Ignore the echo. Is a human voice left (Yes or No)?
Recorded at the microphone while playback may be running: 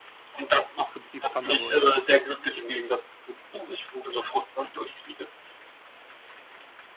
Yes